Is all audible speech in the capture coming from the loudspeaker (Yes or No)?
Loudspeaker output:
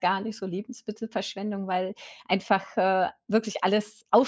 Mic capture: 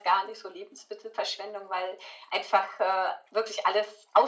Yes